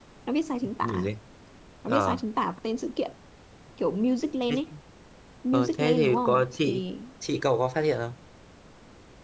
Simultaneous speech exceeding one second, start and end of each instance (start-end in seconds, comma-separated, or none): 5.5-6.8